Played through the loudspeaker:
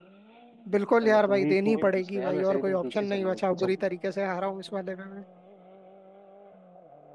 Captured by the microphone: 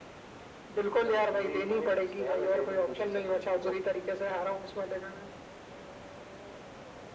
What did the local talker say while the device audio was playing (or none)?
none